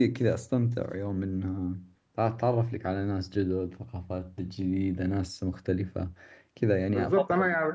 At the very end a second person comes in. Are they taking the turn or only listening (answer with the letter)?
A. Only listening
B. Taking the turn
B